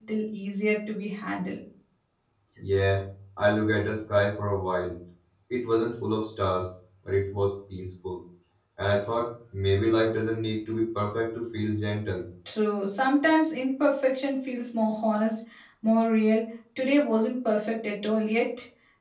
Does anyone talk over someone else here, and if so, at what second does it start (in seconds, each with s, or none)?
none